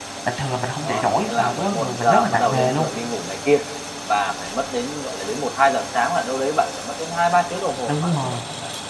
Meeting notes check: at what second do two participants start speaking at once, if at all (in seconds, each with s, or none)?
0.8 s